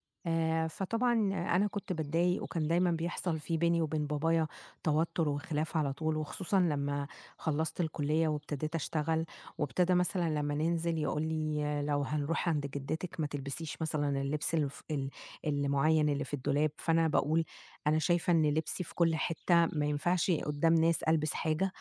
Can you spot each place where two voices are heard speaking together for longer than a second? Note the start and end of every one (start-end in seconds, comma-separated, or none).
none